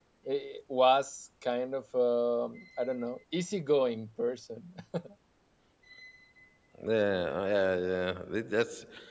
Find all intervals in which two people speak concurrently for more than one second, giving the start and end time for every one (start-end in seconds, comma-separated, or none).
none